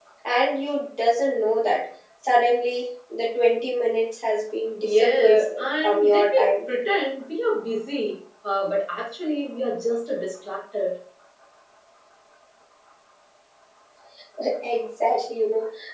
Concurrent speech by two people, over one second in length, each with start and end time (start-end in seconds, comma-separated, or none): 4.8-6.5